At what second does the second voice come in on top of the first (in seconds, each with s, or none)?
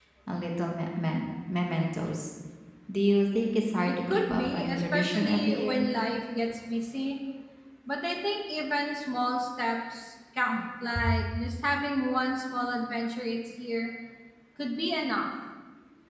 3.9 s